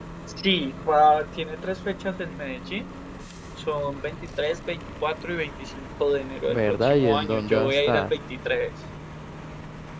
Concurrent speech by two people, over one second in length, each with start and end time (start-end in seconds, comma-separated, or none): 6.5-8.1